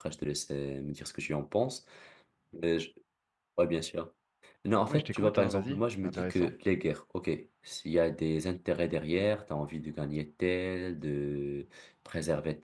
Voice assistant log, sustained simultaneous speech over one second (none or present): present